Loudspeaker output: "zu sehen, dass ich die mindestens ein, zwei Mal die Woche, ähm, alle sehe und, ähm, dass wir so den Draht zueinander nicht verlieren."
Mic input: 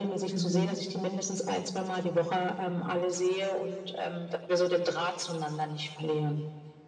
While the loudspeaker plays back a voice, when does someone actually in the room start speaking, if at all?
0.3 s

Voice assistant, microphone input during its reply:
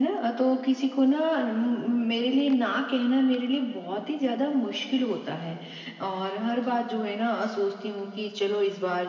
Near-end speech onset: none

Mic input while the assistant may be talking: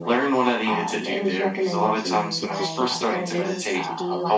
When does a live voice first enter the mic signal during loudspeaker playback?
2.4 s

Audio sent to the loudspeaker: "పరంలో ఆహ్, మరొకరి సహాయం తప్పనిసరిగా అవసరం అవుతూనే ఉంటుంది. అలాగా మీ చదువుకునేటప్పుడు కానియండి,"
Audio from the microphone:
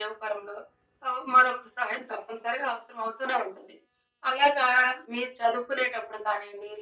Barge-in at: none

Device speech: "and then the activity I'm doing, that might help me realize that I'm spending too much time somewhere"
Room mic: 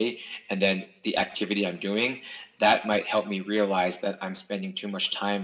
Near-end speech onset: none

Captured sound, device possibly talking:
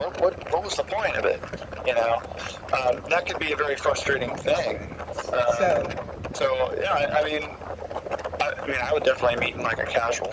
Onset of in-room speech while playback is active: 4.4 s

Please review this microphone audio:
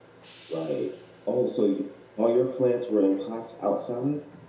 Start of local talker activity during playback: 0.5 s

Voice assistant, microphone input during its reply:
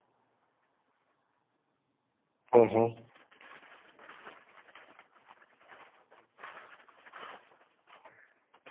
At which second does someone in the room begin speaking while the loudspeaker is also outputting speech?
2.5 s

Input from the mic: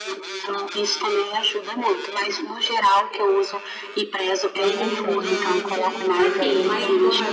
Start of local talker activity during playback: 4.5 s

